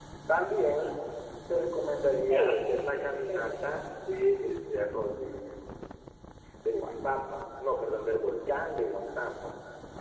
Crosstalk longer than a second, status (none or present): present